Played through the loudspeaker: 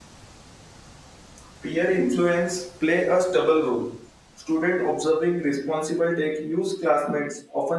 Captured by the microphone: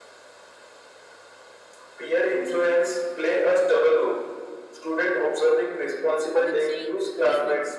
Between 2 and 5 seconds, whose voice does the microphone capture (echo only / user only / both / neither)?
echo only